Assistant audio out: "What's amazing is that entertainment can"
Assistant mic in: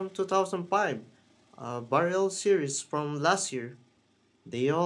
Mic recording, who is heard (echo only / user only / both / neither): user only